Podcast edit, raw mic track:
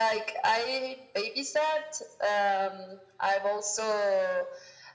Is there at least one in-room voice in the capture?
No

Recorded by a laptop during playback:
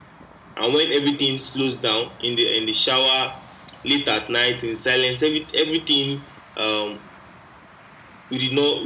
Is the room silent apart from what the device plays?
Yes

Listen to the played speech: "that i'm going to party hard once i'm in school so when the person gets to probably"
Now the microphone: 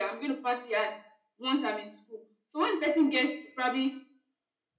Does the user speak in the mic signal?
No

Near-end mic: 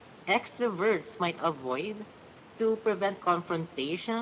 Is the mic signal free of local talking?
Yes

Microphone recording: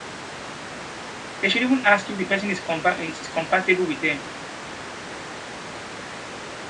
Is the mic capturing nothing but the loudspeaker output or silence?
No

